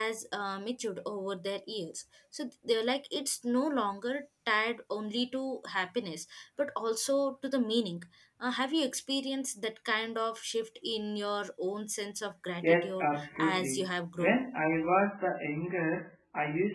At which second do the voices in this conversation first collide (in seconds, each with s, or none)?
12.6 s